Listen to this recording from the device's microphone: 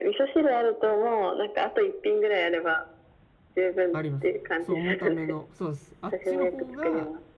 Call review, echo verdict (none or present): present